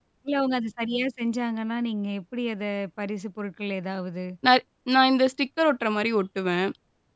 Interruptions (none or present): none